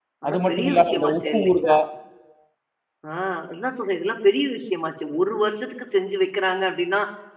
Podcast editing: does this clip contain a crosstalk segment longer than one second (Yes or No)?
Yes